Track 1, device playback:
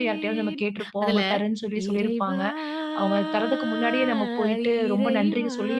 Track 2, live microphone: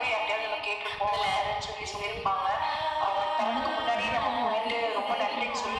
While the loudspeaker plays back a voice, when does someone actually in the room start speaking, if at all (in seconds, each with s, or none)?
3.5 s